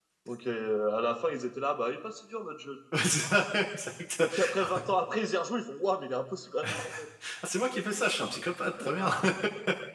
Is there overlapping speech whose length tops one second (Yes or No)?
No